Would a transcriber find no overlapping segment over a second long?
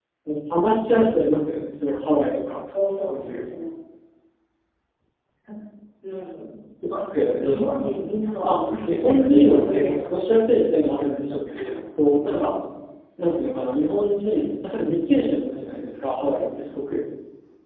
No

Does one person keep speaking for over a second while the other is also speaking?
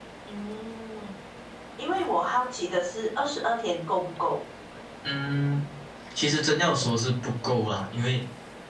No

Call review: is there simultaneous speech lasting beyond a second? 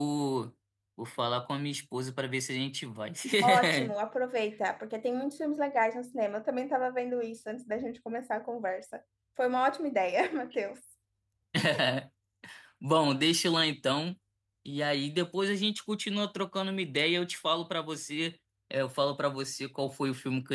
No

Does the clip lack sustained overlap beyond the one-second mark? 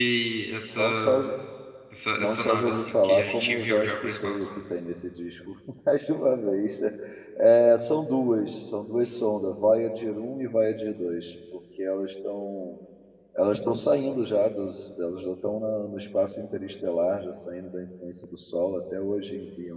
No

